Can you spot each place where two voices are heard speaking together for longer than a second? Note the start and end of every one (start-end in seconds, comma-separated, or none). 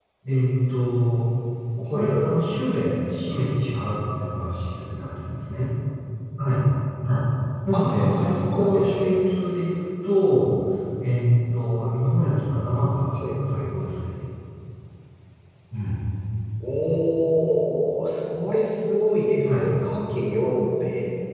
7.7-9.2